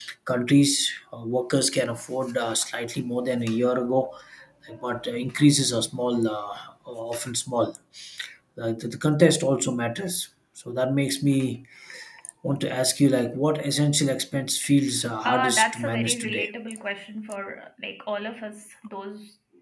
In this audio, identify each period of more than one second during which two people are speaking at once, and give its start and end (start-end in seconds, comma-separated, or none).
15.2-16.5